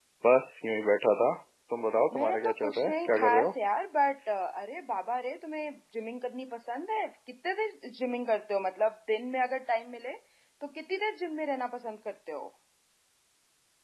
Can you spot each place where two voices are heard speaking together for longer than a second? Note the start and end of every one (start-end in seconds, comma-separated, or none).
2.1-3.5